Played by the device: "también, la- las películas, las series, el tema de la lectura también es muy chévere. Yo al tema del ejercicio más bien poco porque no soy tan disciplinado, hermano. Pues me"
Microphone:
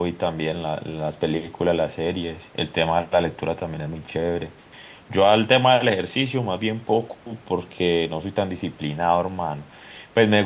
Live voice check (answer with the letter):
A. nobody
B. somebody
A